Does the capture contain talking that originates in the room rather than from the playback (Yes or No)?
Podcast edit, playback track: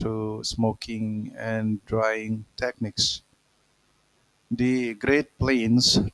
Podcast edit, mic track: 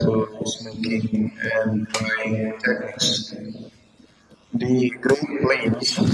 No